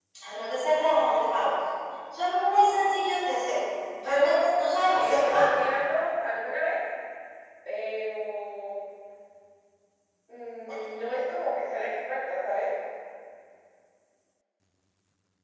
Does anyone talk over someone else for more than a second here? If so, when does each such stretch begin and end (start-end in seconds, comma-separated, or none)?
4.0-5.4